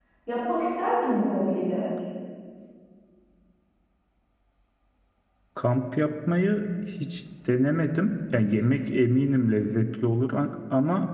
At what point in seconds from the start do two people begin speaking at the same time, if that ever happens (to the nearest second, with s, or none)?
none